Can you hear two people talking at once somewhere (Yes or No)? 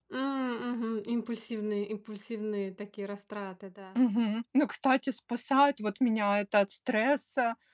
No